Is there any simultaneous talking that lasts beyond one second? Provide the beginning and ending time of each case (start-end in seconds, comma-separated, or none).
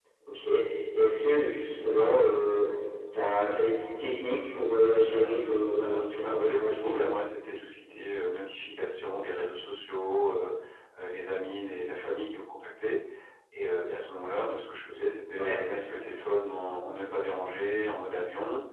5.0-7.1